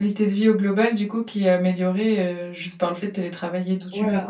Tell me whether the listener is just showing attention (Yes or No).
No